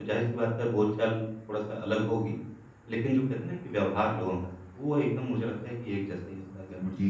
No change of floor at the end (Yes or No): No